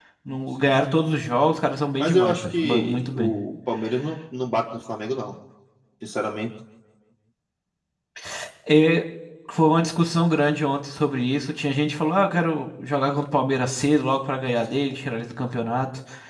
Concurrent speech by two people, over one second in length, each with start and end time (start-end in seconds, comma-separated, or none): 1.9-3.3